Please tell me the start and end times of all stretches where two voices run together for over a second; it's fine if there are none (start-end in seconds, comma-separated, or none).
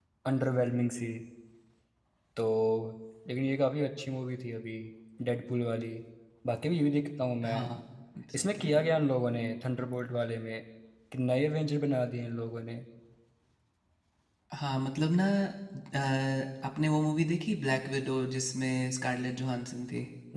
none